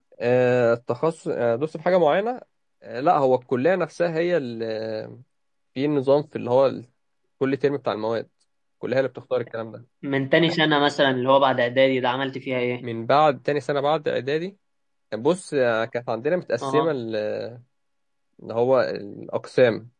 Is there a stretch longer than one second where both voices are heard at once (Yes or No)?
No